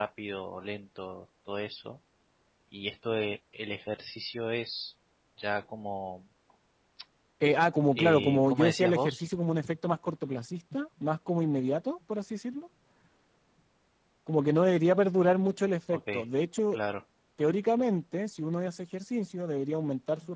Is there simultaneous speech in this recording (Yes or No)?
Yes